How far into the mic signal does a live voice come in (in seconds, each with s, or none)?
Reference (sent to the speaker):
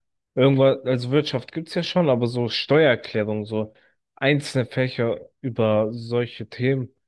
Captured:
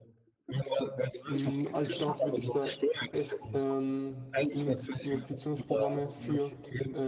1.2 s